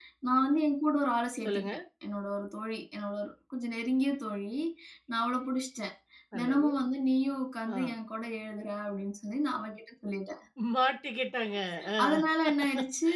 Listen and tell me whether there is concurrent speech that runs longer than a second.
No

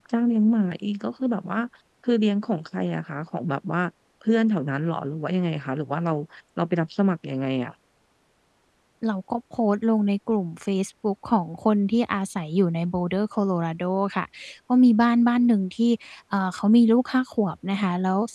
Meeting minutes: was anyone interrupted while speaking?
No

